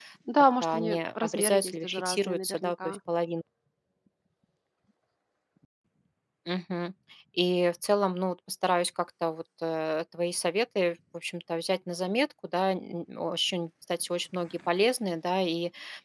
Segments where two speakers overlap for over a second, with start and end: 0.6-3.0

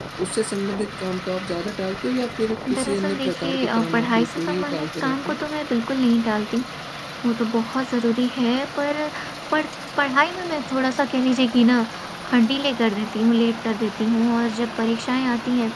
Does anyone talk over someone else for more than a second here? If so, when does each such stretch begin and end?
2.8-5.4

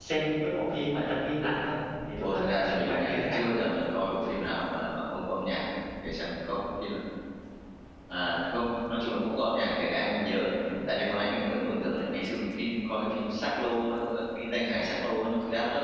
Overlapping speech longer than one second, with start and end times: 2.2-3.4

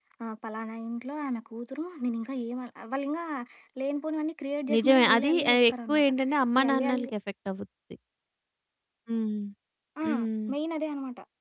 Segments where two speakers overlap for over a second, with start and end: 4.7-6.1

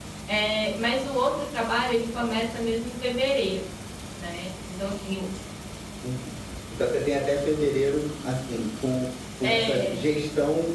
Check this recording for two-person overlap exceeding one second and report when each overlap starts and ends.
none

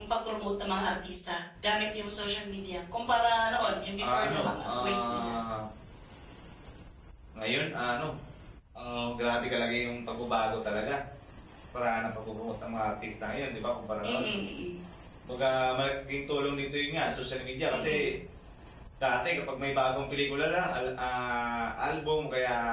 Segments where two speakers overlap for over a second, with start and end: 4.0-5.3

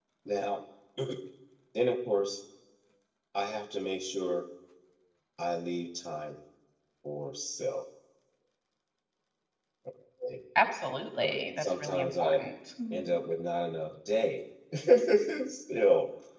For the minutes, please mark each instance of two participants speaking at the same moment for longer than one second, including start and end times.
11.2-12.4

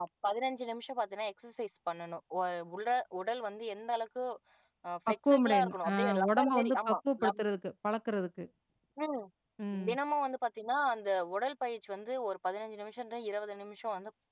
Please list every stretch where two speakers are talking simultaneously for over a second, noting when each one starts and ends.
5.1-7.0

